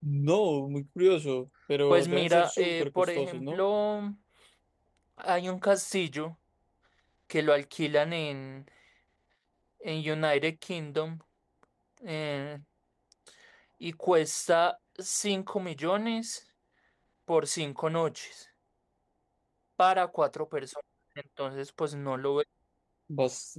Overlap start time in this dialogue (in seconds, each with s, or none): 1.9 s